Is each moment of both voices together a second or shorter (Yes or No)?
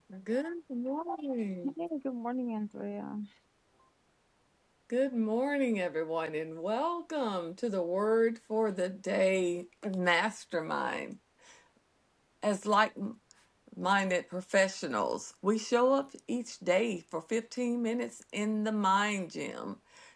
Yes